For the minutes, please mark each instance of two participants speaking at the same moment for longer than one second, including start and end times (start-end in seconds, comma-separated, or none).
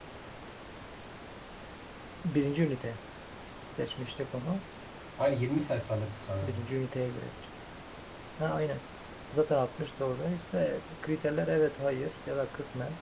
none